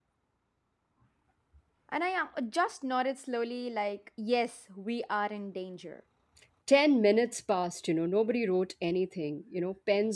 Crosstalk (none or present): none